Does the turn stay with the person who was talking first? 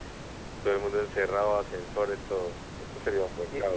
No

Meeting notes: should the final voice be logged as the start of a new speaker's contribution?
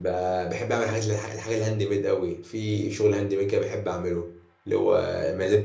No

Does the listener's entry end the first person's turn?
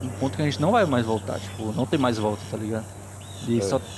No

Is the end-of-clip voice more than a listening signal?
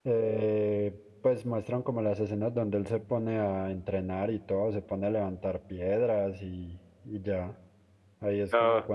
No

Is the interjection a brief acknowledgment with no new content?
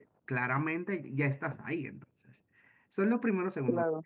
Yes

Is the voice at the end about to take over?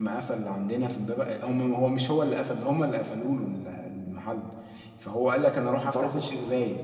No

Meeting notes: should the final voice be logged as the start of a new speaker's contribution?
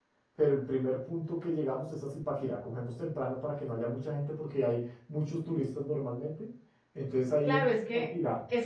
Yes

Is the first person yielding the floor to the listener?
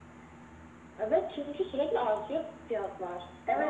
Yes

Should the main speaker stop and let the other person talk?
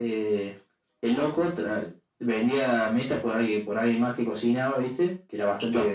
No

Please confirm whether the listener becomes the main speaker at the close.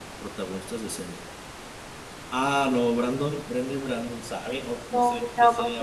Yes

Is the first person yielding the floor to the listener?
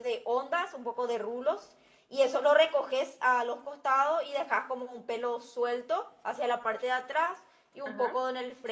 No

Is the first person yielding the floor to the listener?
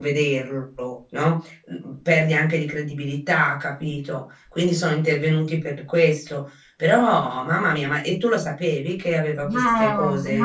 Yes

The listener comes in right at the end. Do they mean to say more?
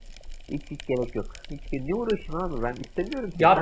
Yes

